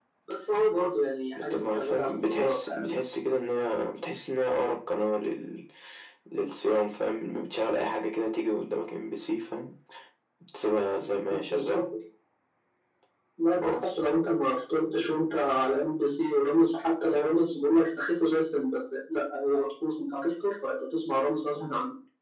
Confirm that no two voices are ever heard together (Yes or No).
No